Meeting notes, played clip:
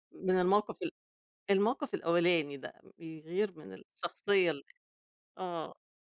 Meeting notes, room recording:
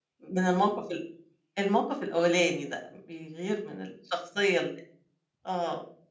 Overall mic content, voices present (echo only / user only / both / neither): echo only